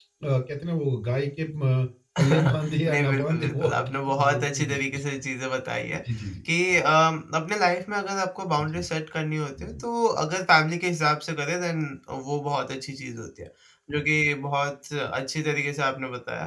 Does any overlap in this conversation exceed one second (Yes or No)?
Yes